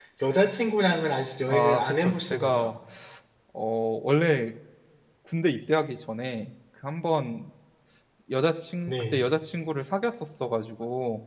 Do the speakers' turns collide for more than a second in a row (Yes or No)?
Yes